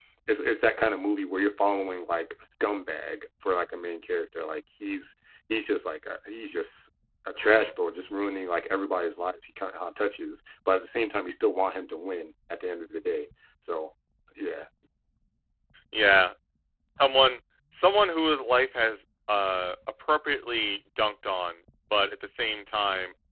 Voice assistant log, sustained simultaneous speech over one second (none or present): none